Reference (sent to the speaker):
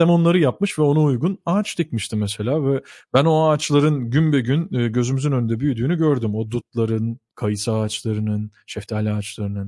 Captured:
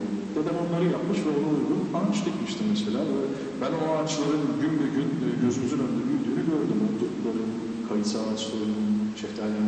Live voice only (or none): Hı hı.